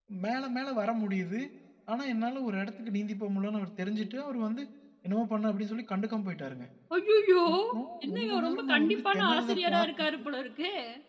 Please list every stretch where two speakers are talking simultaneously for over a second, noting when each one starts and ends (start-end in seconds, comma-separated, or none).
8.1-10.1